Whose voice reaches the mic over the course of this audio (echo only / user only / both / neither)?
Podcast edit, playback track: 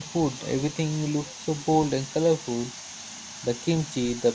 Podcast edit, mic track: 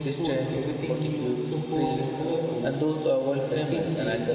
both